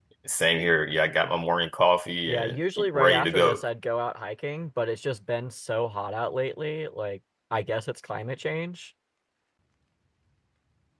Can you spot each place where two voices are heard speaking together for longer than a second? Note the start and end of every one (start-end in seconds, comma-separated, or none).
2.3-3.6